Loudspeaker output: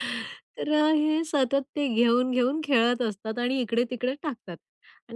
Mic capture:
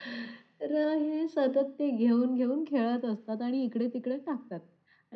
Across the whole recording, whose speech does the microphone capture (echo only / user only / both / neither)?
echo only